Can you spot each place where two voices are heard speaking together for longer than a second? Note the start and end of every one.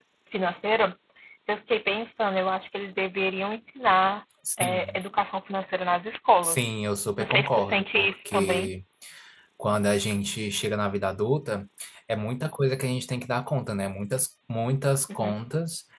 7.2-8.7

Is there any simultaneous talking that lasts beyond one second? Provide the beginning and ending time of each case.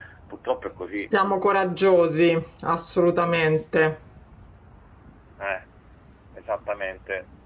none

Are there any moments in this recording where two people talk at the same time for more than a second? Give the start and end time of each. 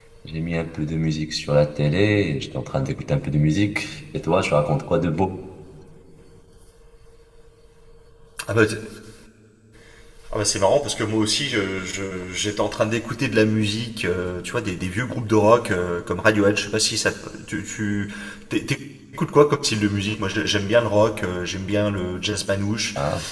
none

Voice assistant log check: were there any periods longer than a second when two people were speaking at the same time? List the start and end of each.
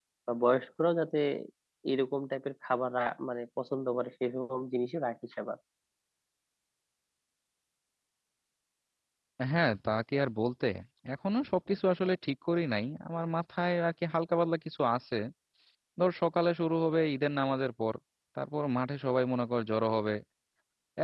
none

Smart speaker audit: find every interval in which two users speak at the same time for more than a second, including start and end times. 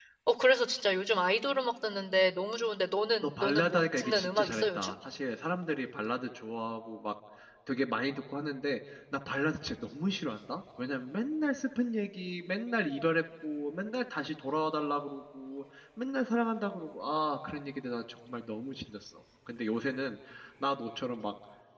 3.2-4.9

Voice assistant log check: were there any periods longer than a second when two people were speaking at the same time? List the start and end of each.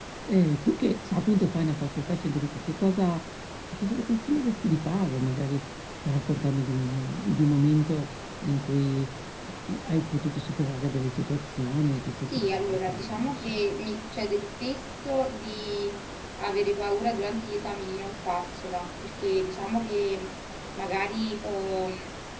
12.3-13.6

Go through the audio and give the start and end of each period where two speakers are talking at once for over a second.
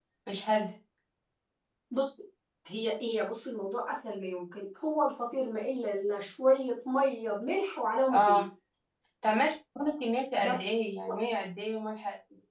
none

